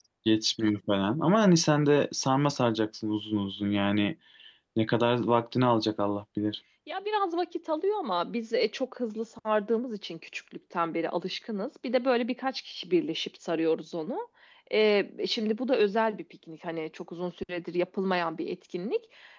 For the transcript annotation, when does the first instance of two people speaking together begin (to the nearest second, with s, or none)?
none